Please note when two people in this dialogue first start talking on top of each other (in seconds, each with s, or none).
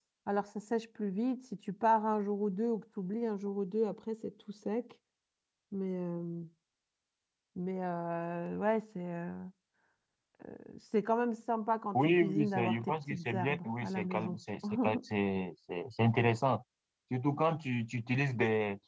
11.9 s